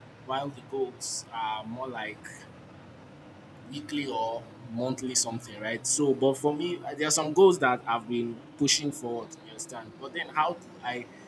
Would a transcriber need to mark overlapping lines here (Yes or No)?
No